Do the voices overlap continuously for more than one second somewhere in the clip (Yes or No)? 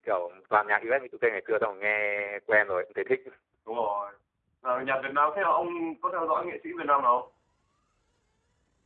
No